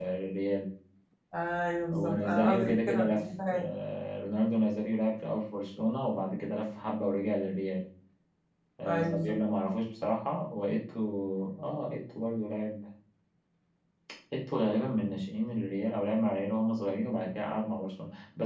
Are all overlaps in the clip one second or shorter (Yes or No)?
No